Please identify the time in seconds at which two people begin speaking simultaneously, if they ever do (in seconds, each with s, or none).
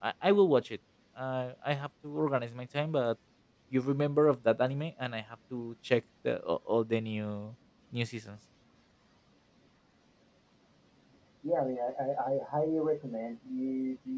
none